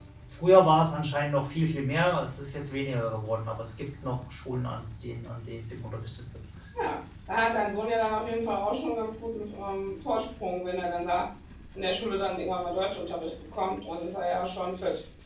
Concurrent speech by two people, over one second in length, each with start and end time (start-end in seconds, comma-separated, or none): none